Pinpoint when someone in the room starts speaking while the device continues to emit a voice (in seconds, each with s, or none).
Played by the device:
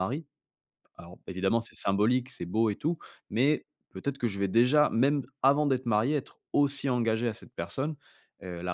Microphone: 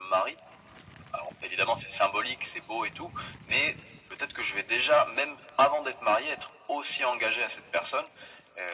none